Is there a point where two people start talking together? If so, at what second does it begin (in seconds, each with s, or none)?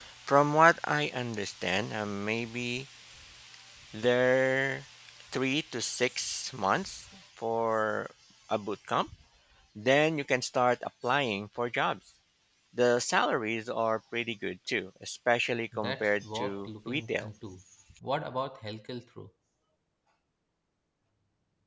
15.7 s